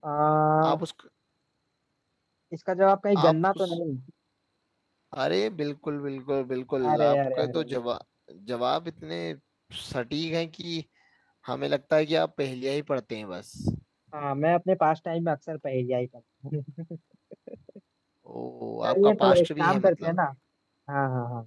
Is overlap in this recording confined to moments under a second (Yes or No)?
No